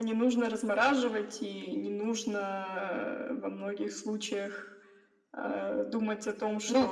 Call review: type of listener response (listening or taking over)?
taking over